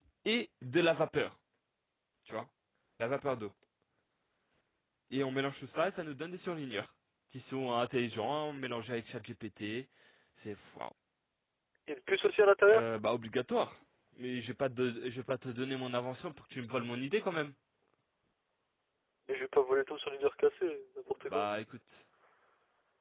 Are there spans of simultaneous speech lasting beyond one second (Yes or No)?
No